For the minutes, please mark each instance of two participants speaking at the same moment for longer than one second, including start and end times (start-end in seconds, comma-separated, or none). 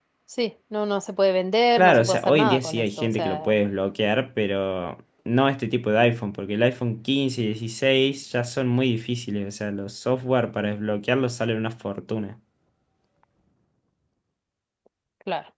1.8-3.5